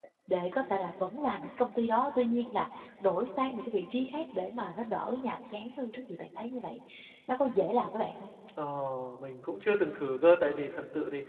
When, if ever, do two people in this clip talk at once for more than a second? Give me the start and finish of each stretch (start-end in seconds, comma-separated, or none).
none